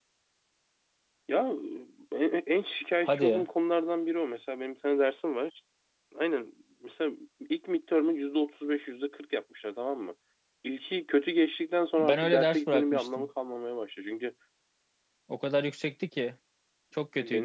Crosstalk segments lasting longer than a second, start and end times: 12.0-13.3

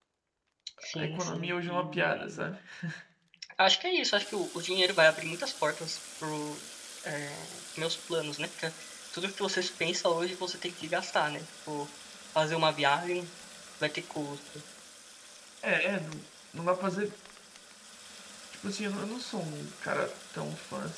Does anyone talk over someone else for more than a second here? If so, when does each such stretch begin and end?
0.9-2.4

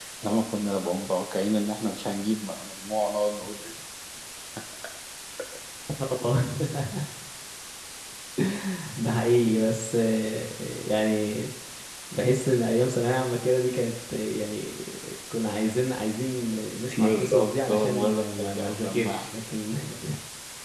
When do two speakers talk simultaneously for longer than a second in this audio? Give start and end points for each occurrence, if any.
17.0-19.3

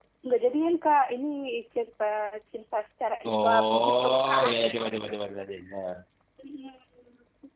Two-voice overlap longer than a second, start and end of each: 3.2-4.6

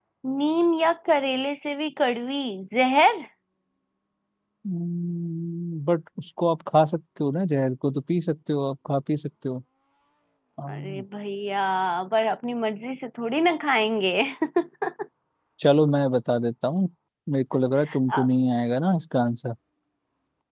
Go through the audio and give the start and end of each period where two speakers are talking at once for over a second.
none

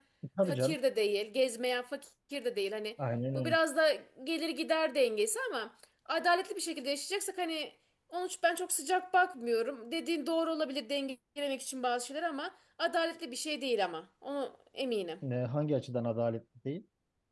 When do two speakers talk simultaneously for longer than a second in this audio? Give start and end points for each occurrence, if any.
none

